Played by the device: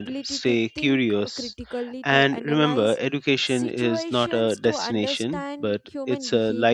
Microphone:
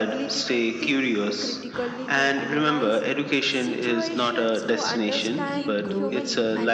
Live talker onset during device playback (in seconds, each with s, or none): 5.4 s